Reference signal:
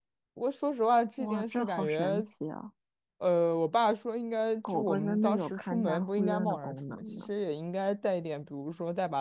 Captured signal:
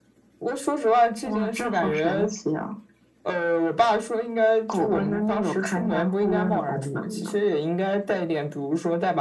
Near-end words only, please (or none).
none